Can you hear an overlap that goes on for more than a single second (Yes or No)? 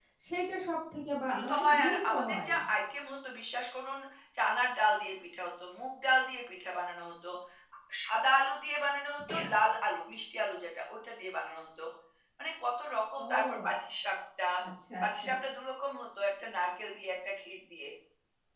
Yes